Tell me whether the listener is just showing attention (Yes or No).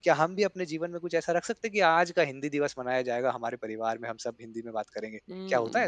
No